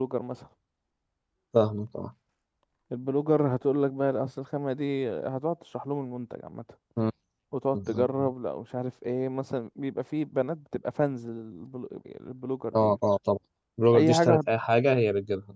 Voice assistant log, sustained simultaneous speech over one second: none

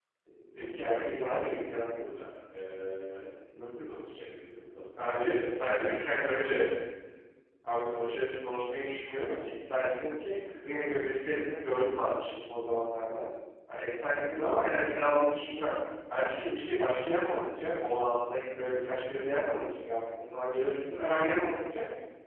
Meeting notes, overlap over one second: present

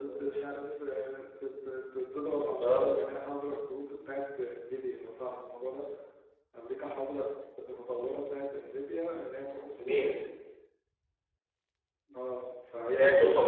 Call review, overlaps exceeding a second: none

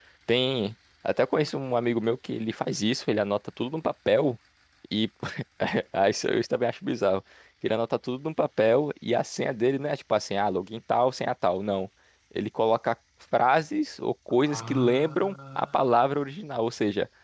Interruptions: present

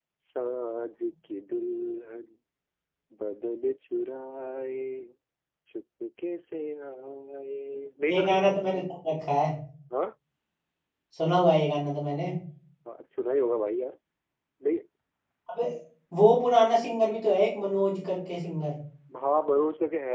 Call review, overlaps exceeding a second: none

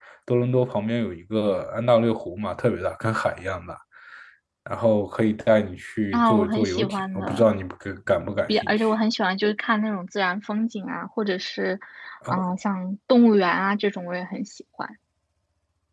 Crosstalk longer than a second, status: present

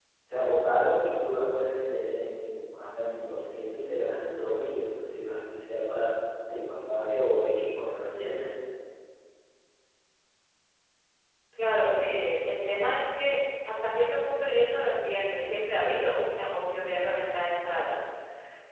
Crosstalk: none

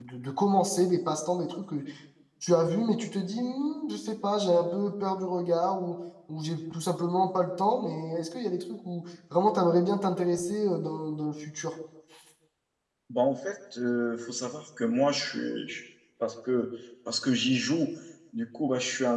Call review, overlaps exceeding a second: none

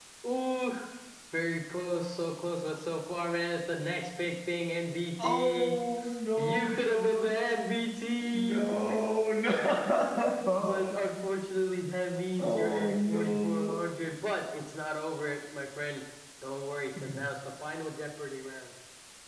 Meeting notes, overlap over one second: present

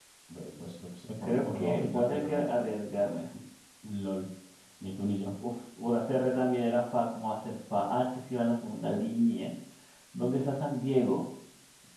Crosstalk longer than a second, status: present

